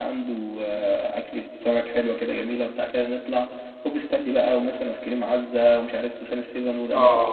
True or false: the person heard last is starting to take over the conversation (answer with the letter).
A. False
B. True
B